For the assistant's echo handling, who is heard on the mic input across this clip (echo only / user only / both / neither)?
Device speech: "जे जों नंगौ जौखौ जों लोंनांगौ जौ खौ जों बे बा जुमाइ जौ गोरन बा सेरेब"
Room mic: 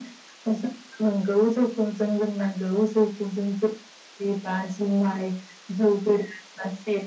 echo only